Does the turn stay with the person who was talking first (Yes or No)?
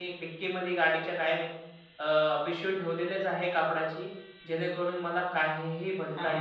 No